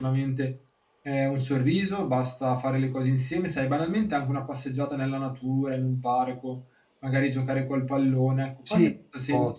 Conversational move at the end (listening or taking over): taking over